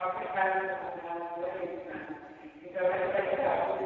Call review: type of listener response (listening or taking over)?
listening